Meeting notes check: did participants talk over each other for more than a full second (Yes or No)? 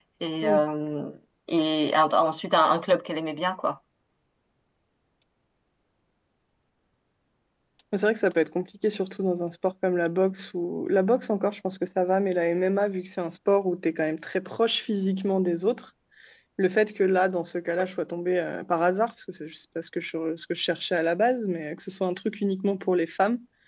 No